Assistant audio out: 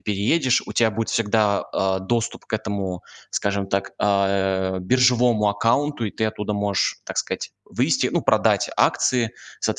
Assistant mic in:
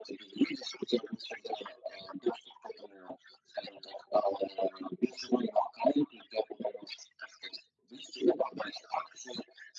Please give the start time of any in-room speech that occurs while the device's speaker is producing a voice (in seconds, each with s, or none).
none